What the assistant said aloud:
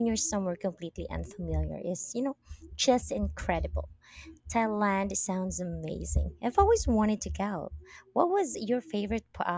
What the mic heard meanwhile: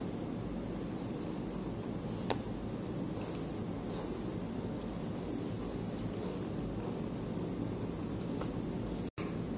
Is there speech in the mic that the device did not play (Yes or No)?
No